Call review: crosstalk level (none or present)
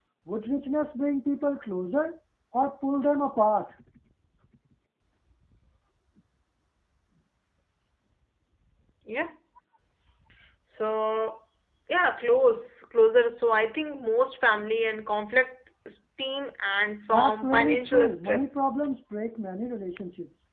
present